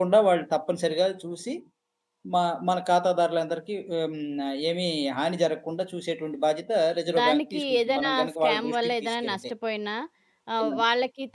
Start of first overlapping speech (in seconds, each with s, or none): 7.1 s